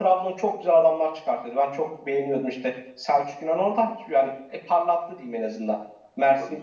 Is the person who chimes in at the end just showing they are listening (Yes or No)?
Yes